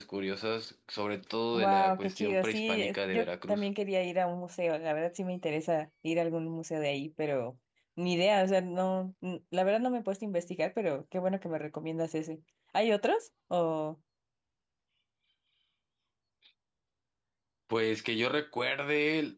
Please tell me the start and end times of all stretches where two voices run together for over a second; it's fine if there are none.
1.5-3.7

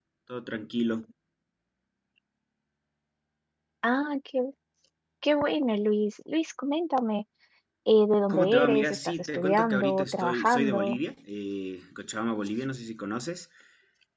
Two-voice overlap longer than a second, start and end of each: 8.3-11.0

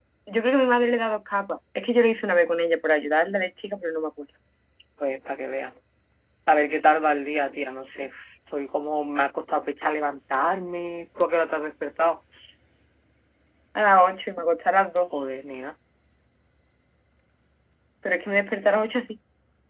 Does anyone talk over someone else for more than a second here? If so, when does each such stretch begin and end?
none

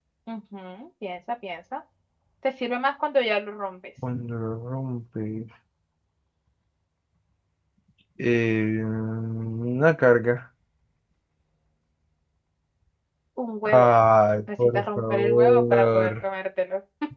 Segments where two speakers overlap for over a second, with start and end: 14.6-16.1

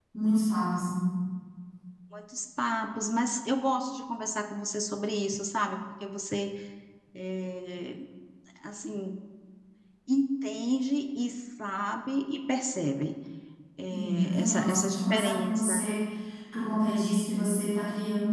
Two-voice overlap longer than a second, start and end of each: 13.9-15.8

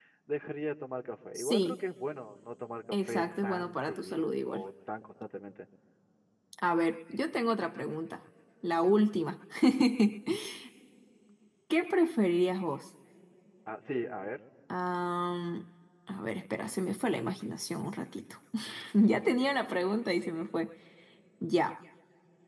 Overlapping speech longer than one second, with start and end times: 2.9-4.6

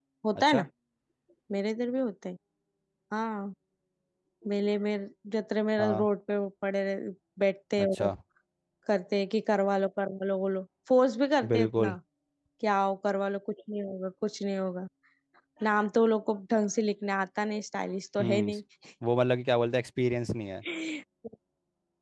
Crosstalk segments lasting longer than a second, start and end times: none

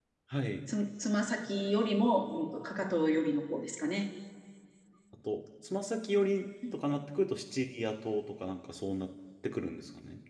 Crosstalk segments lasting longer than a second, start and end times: none

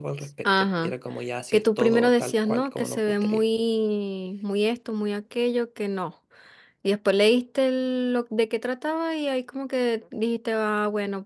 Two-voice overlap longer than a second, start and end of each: 1.5-3.4

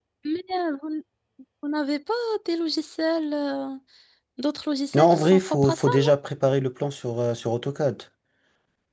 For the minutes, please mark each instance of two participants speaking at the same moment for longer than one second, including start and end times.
5.0-6.2

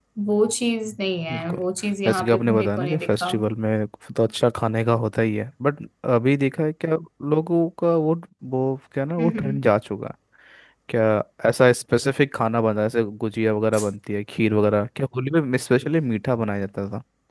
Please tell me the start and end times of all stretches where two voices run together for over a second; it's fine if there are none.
2.0-3.3

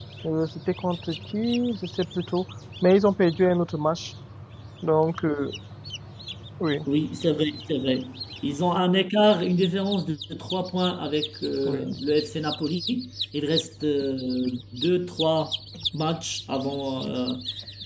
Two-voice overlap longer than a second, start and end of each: none

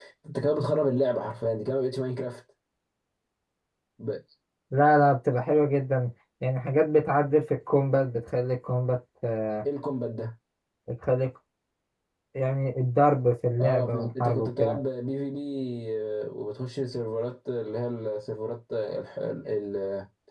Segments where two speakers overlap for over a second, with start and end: 13.6-14.8

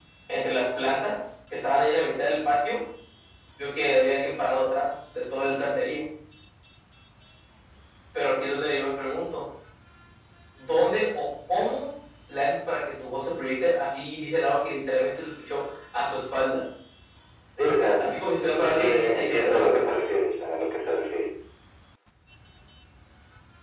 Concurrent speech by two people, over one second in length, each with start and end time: 18.0-19.9

